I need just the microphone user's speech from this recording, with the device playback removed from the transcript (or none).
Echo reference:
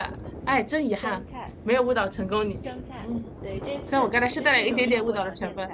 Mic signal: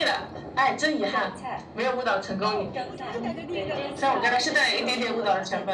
哦，我就我就感觉你应该都知道